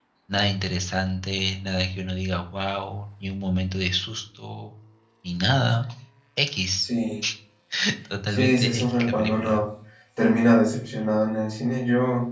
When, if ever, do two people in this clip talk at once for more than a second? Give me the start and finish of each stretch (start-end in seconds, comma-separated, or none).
8.3-9.6